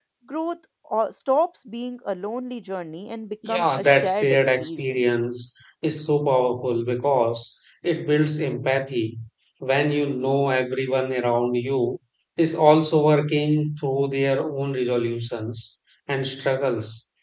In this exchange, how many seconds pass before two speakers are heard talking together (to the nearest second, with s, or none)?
3 s